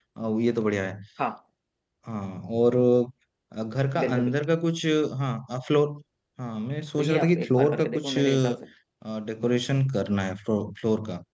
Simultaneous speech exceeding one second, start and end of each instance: 7.0-8.6

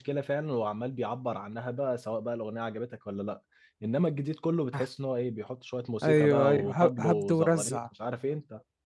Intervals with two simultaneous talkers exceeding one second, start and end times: 6.0-7.8

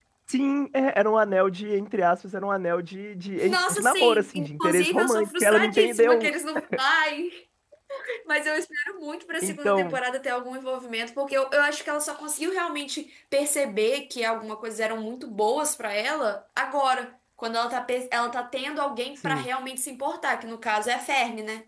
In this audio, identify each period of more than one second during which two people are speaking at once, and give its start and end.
3.4-6.3

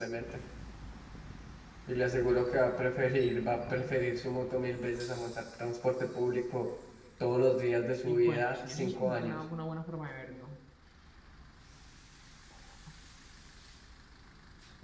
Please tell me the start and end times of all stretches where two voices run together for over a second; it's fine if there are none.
8.1-9.4

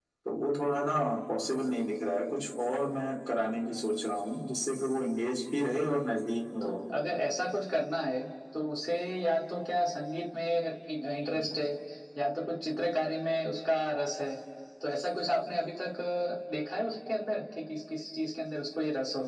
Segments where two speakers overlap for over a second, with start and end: none

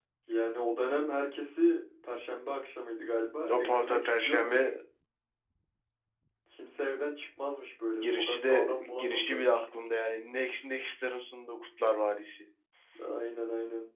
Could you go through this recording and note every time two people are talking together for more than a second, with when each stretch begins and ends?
3.4-4.7, 8.0-9.6

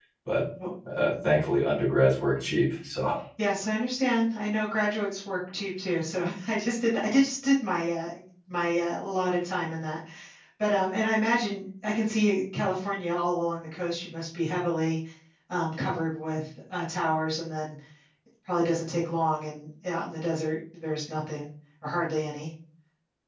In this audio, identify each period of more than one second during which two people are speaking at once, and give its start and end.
none

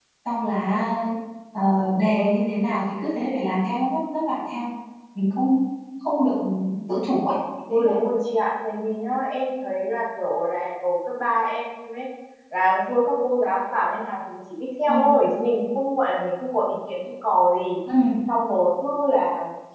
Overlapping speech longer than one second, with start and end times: none

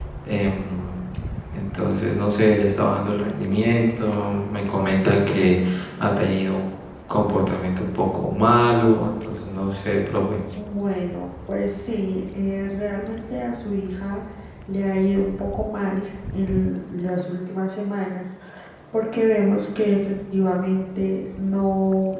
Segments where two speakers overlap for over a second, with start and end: none

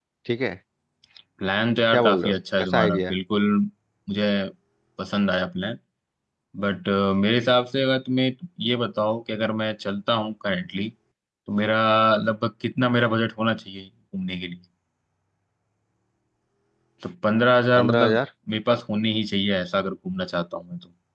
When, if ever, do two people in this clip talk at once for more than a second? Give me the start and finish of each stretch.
1.9-3.1

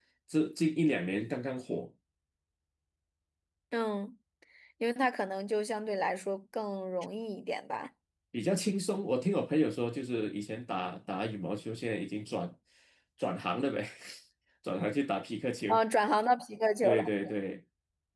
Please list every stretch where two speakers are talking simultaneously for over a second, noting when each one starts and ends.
none

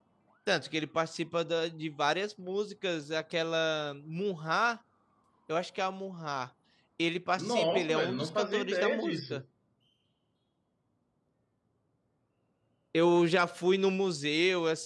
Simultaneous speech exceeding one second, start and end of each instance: 7.4-9.4

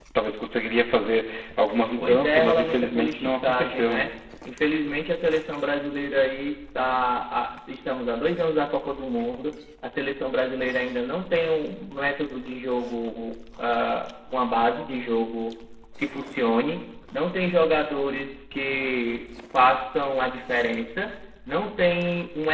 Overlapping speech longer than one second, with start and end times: 2.0-4.1

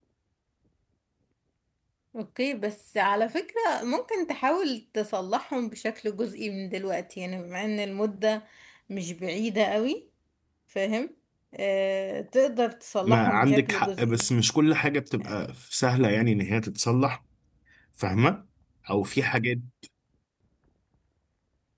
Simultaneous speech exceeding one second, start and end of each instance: 13.0-14.3

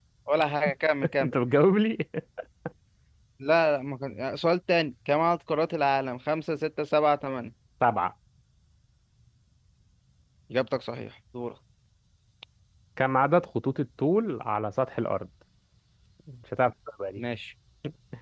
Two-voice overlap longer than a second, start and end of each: none

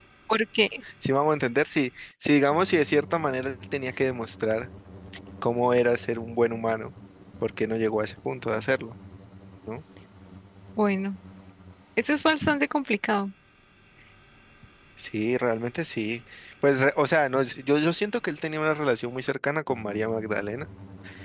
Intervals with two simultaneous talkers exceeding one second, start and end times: none

